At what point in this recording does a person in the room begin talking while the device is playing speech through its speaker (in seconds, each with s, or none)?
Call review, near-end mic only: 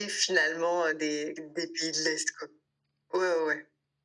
none